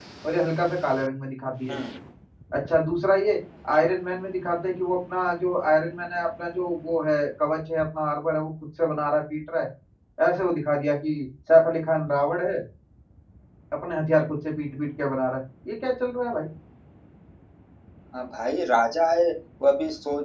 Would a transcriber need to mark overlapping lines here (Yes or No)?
No